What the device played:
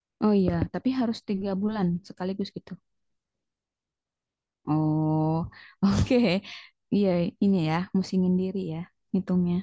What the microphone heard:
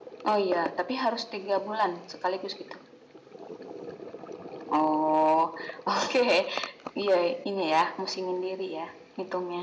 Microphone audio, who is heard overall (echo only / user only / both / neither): echo only